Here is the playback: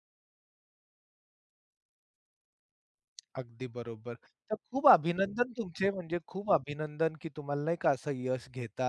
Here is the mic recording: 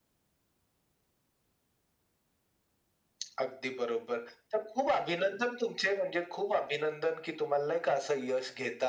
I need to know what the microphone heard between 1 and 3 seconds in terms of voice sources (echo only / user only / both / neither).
neither